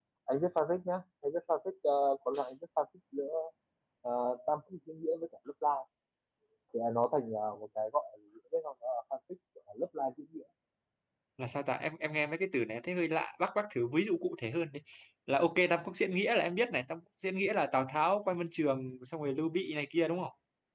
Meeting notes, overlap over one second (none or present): none